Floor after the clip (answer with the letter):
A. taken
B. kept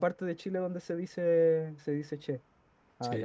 A